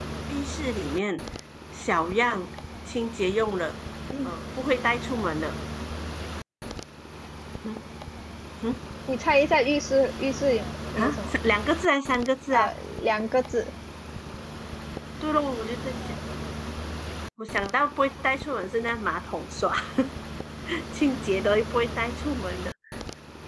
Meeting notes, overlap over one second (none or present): none